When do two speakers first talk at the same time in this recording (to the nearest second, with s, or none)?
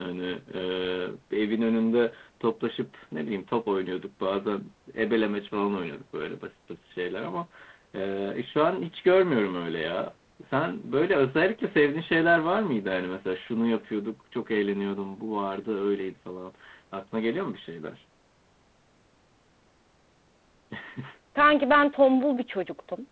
none